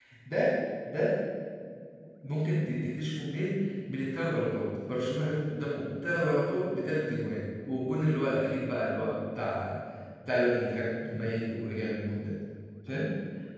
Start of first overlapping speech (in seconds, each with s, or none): none